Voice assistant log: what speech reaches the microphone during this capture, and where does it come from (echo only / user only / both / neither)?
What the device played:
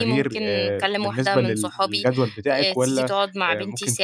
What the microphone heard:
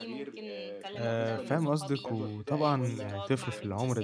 both